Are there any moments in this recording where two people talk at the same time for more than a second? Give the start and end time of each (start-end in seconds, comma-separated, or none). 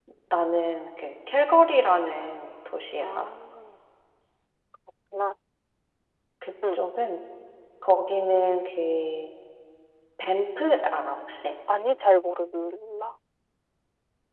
none